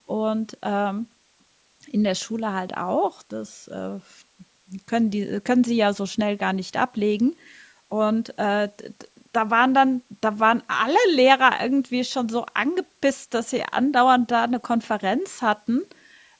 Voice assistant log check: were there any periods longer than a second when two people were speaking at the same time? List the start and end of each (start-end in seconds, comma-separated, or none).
none